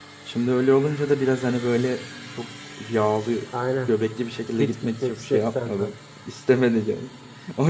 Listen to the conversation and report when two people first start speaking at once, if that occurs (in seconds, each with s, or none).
4.6 s